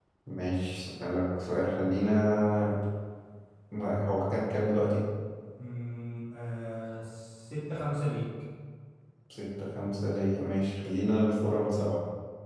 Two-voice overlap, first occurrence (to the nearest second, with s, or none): none